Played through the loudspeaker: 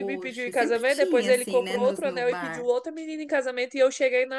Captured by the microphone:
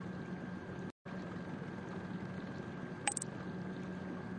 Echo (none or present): none